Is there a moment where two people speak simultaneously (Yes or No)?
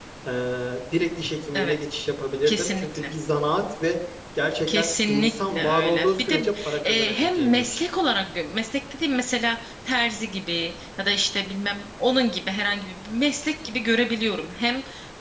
Yes